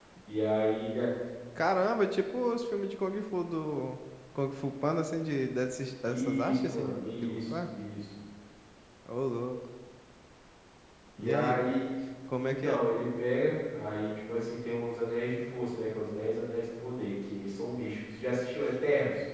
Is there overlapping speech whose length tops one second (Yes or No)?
Yes